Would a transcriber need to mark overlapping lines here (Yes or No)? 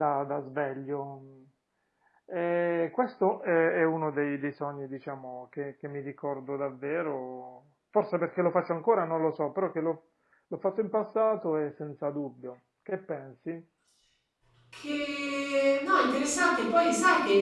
No